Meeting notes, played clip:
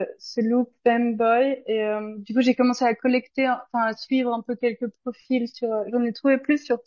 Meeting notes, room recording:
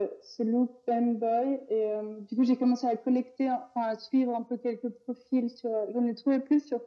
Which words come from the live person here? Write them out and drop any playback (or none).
none